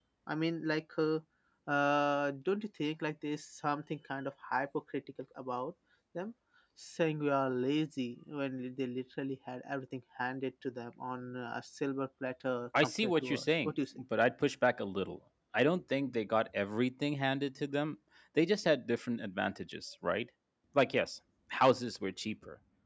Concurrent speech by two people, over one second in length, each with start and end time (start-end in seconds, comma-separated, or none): 12.8-14.0